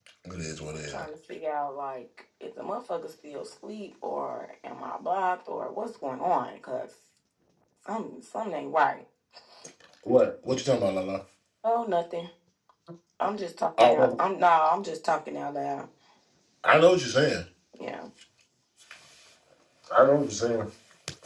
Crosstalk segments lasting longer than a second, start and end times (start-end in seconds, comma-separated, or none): none